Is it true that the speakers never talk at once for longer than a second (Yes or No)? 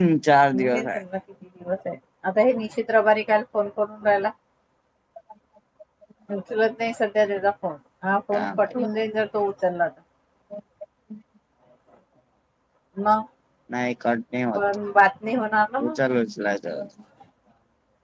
Yes